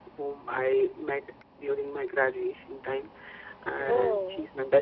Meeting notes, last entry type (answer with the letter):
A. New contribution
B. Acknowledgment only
B